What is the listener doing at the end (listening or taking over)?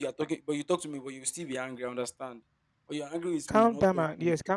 taking over